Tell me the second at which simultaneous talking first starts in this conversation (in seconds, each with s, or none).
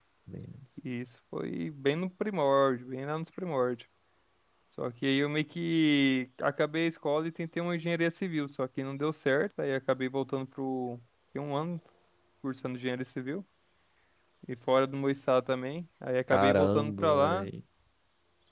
16.3 s